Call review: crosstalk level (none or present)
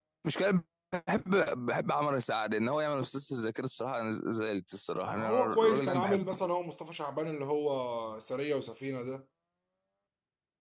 present